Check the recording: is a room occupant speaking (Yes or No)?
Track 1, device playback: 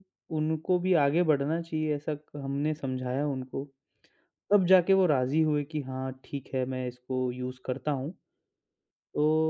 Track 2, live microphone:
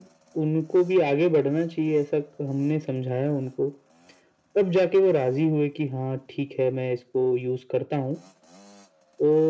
No